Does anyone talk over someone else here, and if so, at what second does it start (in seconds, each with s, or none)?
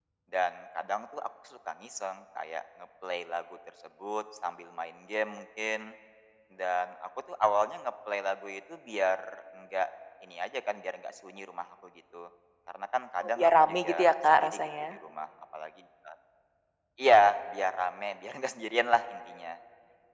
13.4 s